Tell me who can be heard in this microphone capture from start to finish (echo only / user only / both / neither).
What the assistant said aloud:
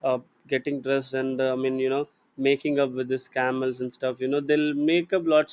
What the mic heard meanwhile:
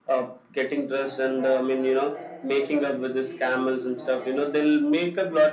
both